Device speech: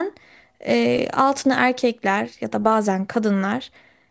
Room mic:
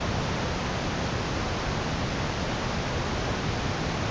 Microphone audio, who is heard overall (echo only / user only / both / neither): neither